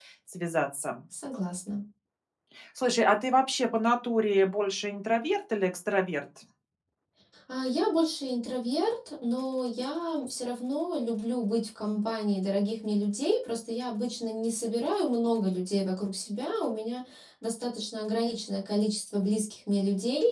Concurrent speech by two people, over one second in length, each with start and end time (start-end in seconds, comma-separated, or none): none